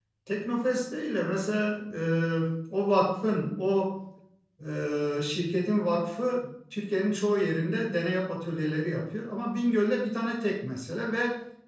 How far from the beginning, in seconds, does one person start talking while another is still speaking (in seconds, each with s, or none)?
none